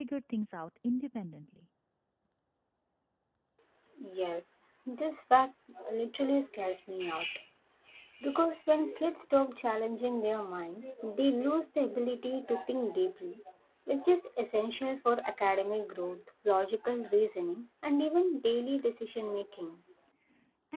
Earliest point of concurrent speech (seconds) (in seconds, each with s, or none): none